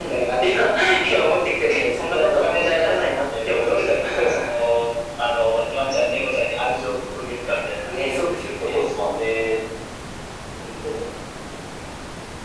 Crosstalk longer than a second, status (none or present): present